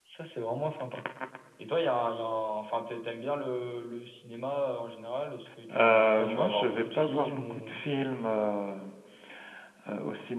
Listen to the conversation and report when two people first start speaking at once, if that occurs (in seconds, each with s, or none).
5.7 s